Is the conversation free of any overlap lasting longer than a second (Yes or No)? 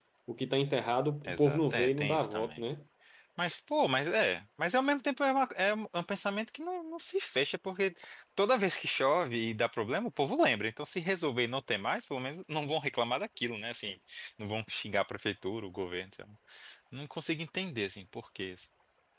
No